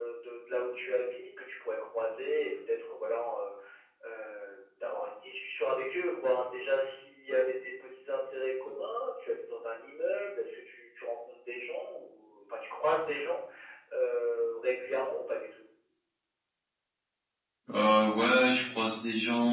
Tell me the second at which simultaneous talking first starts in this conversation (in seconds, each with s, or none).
none